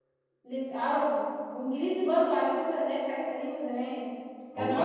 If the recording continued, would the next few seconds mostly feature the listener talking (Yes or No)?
No